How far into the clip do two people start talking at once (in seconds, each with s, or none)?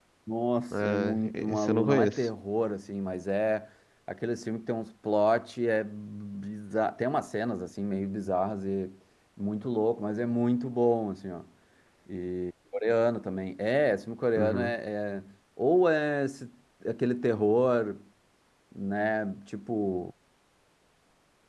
0.7 s